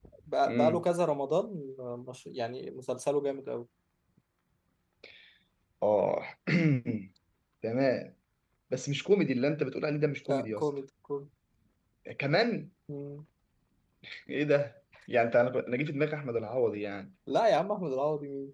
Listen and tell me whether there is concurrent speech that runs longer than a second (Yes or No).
No